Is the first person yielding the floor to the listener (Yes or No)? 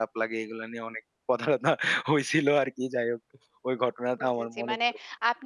Yes